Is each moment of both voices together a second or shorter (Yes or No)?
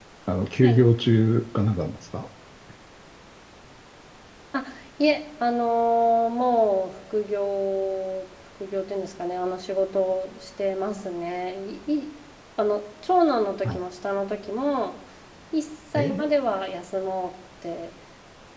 Yes